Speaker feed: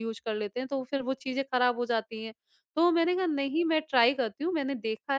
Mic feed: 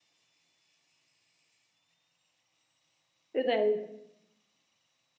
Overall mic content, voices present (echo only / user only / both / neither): user only